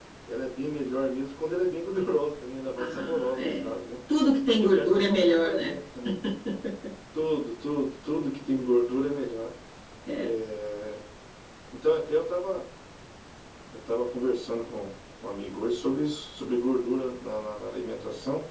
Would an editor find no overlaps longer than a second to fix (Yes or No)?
No